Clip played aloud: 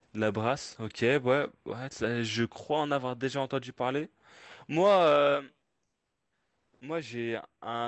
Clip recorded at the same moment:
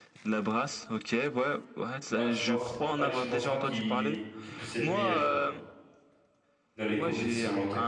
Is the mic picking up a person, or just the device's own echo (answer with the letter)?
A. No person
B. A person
B